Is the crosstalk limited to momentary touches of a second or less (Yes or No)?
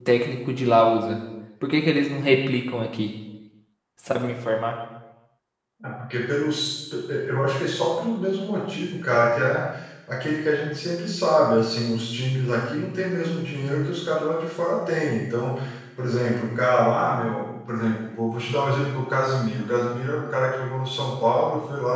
Yes